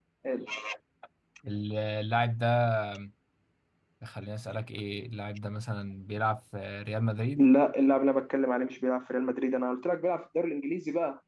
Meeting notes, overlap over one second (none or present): none